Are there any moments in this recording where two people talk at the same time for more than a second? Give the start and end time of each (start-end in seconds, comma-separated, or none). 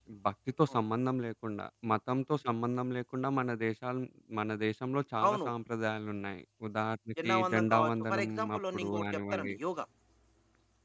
7.2-9.5